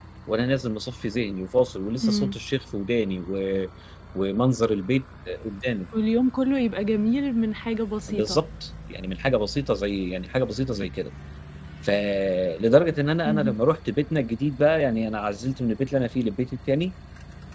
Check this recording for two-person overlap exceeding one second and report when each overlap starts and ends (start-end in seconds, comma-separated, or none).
none